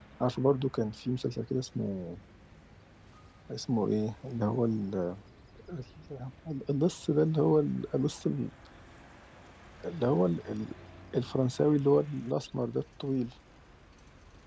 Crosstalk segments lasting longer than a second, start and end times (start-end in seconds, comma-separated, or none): none